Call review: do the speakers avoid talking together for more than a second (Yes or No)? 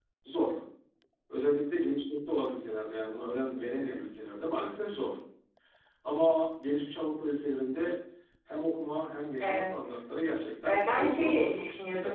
No